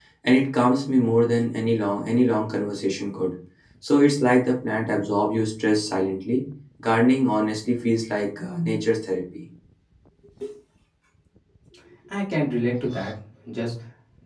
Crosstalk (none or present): none